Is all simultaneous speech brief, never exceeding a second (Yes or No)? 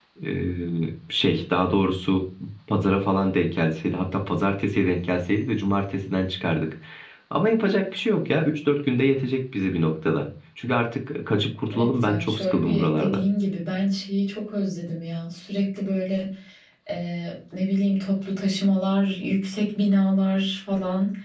No